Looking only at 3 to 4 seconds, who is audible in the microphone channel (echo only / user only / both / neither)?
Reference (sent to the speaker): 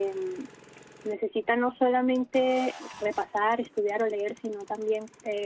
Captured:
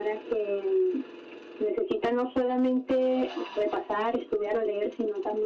echo only